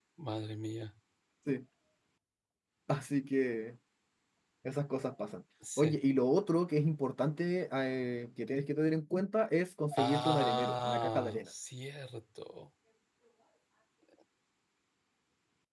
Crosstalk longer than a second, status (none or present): present